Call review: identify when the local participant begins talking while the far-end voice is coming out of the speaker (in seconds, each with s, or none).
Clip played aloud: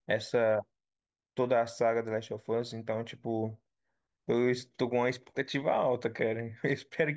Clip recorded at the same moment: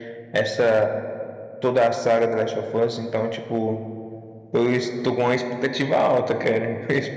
none